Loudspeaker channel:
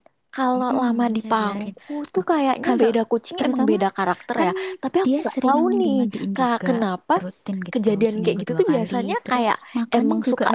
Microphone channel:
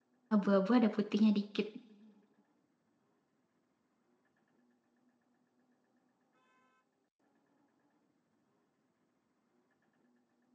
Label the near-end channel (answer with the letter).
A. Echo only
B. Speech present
B